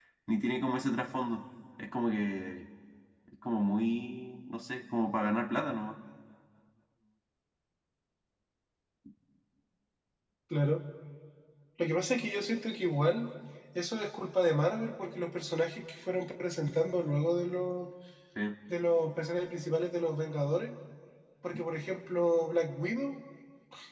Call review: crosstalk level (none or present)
none